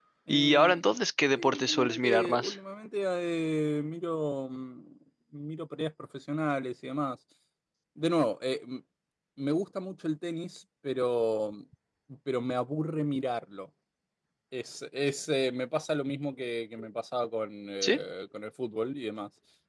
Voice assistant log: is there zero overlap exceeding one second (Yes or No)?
No